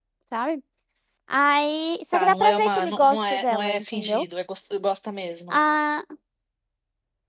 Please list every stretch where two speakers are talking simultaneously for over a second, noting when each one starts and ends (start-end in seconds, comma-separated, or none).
2.1-4.2